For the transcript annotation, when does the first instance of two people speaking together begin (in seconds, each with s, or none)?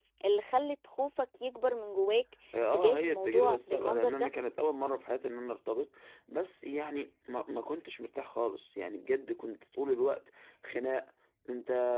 2.5 s